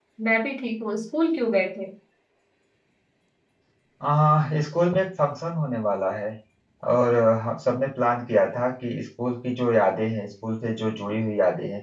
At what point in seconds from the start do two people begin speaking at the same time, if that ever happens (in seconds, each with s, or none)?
none